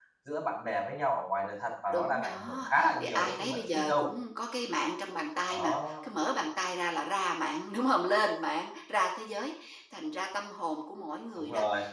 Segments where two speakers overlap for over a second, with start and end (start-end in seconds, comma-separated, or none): 1.9-4.1